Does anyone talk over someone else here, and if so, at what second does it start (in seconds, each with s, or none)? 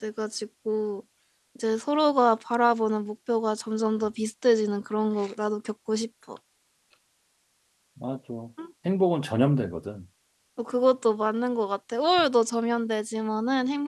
none